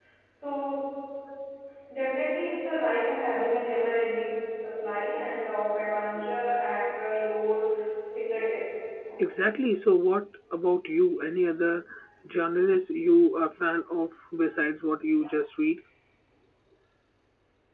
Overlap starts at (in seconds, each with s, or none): none